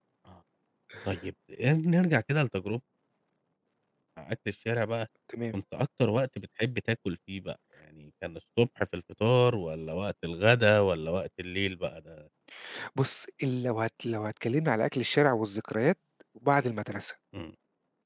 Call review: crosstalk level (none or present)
none